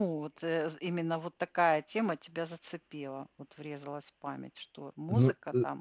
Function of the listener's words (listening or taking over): taking over